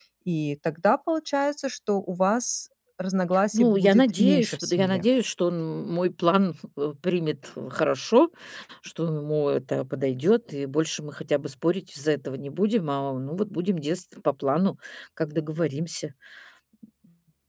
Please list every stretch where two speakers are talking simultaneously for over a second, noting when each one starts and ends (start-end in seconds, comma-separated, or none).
3.5-5.0